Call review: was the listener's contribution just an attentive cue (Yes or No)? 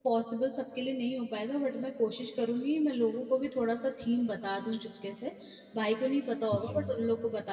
Yes